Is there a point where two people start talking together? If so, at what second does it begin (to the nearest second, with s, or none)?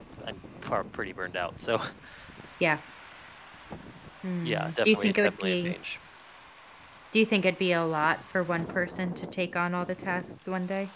4 s